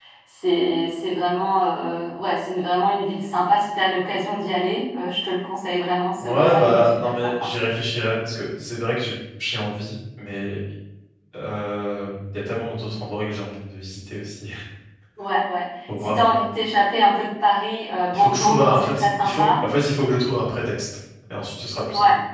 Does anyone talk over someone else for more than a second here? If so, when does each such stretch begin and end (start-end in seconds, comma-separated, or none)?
6.2-7.5, 18.1-19.4